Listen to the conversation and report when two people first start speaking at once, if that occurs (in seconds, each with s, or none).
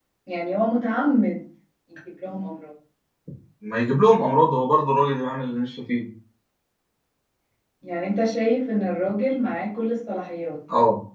none